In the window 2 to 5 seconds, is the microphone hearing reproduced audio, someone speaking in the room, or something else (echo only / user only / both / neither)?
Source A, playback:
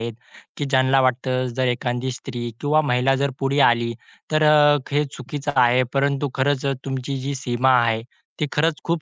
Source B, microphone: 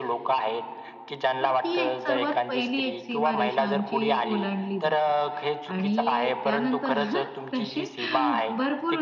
both